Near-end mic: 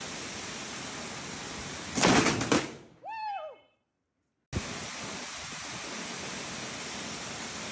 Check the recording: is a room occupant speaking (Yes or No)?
No